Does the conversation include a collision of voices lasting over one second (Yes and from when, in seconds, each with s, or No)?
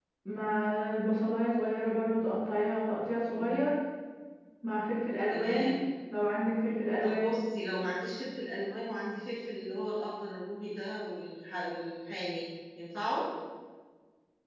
No